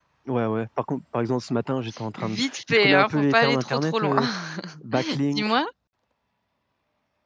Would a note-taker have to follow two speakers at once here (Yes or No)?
Yes